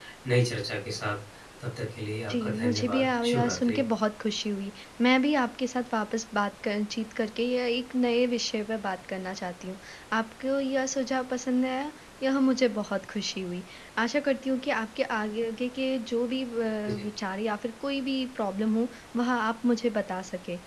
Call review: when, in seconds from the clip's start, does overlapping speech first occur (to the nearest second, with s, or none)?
2 s